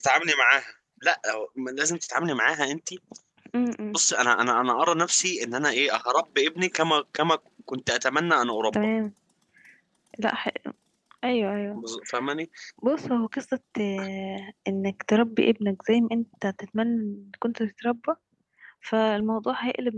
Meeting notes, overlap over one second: none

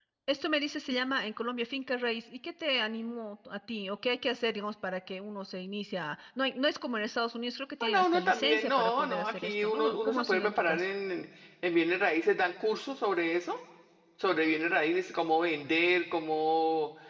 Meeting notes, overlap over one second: present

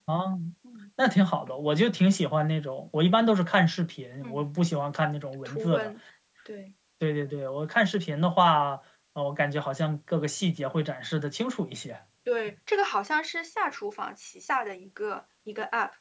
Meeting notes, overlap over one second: none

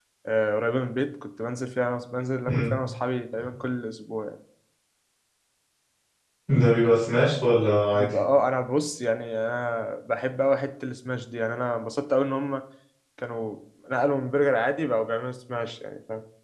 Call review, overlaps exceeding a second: none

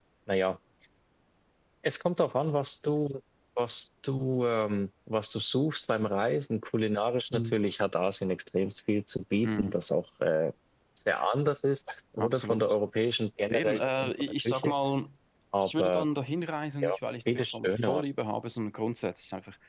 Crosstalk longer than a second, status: present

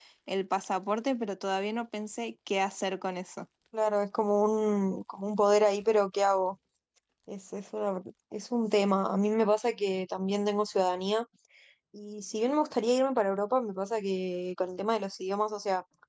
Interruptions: none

